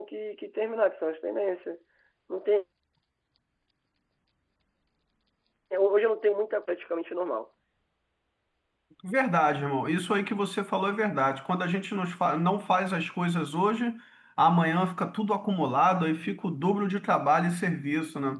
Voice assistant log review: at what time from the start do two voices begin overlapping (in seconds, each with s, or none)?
none